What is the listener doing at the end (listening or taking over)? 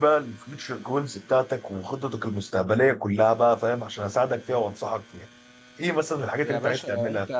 taking over